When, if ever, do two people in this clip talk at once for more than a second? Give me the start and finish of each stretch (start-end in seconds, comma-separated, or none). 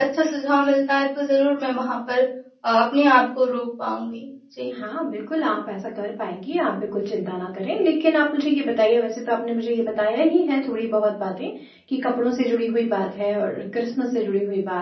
none